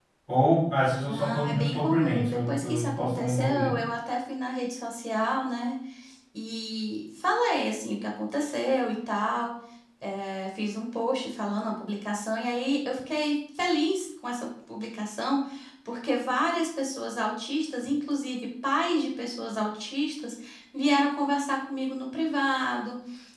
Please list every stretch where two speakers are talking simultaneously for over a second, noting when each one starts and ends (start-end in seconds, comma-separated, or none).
1.1-3.8